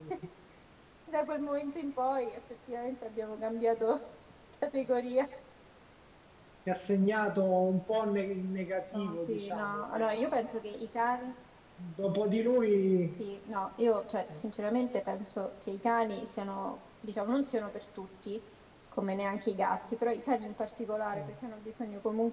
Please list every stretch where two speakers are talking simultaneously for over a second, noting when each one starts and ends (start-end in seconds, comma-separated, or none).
8.9-10.6